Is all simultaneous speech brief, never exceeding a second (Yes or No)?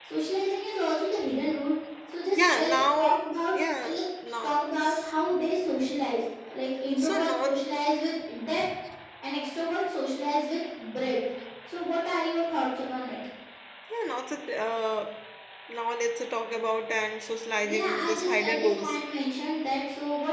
No